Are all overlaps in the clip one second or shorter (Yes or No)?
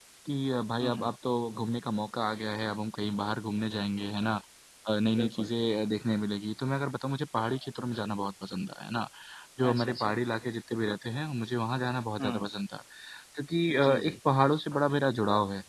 Yes